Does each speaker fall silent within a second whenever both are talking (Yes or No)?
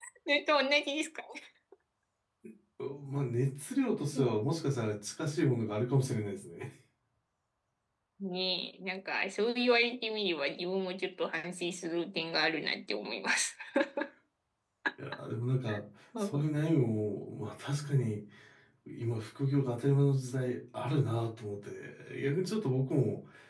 Yes